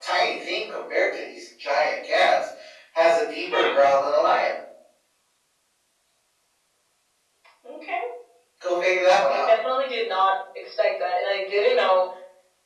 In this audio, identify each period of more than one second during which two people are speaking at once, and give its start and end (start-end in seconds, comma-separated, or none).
none